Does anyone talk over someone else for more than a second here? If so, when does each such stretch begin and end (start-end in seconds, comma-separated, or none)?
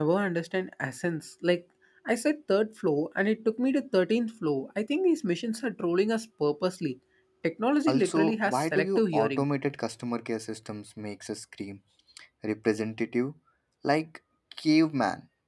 7.9-9.4